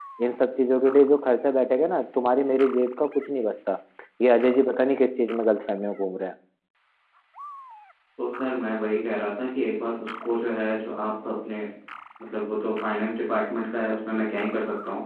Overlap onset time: none

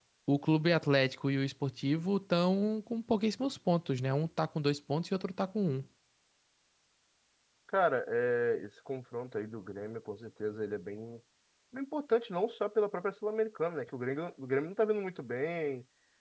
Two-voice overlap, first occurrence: none

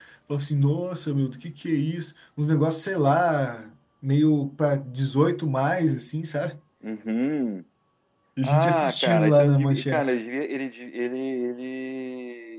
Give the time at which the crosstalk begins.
8.4 s

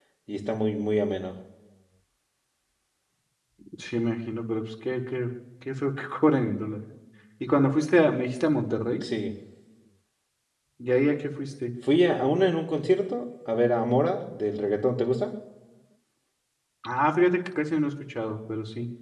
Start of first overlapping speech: none

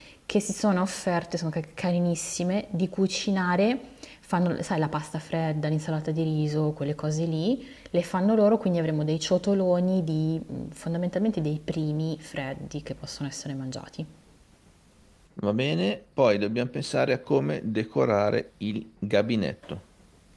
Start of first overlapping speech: none

